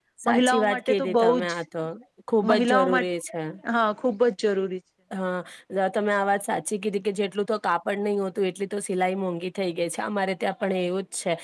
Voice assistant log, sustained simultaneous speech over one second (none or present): present